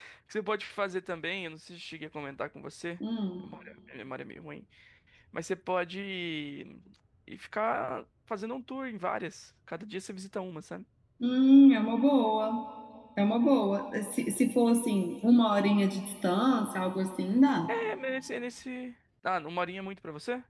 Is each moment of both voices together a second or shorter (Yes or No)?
Yes